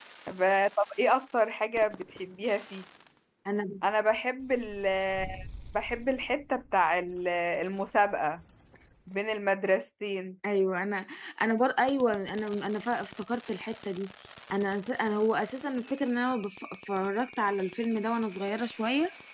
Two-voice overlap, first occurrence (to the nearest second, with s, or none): none